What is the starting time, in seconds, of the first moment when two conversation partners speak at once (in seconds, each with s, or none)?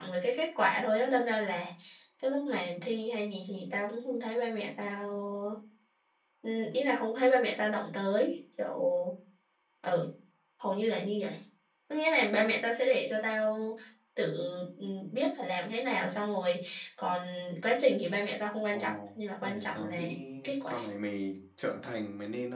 18.7 s